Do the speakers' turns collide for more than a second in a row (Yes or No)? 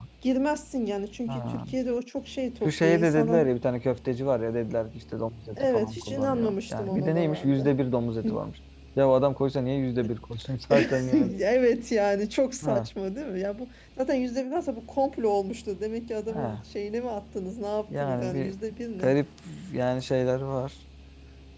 Yes